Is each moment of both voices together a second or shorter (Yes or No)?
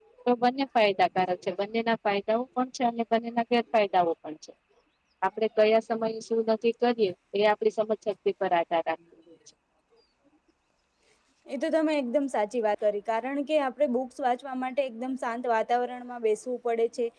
Yes